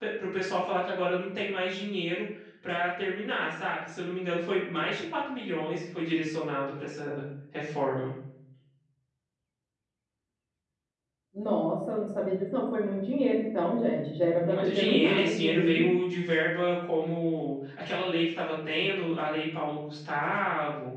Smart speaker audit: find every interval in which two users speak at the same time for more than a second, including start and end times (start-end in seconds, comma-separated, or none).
14.5-15.9